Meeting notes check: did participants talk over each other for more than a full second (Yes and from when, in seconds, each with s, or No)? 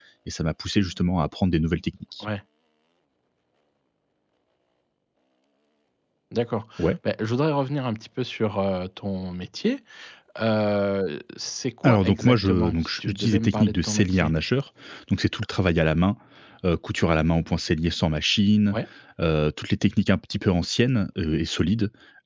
Yes, from 11.8 s